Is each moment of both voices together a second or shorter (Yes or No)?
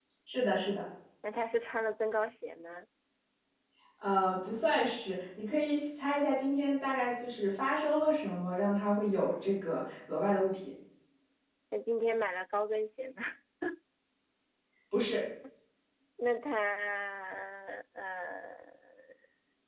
Yes